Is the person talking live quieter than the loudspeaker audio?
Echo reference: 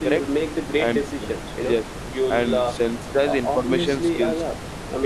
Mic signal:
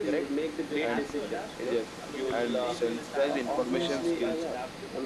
Yes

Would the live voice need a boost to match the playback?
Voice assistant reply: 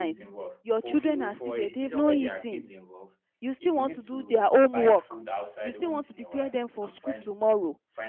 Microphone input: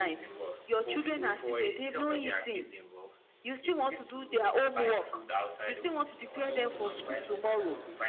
Yes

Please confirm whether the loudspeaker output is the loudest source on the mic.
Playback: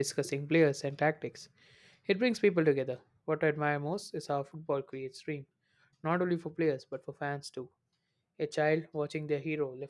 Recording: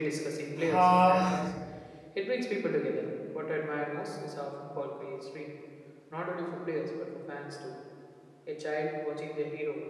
No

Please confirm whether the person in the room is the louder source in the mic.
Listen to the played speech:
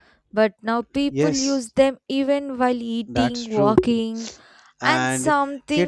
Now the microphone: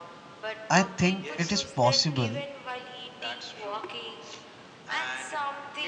Yes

